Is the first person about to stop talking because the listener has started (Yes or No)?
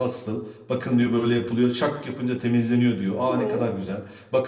No